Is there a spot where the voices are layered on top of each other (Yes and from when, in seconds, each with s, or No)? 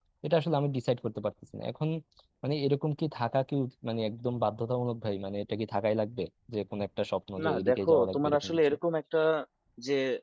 Yes, from 7.4 s